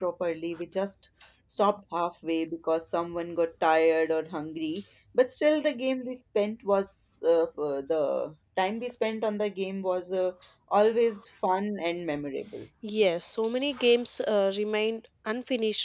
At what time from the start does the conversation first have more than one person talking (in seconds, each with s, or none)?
none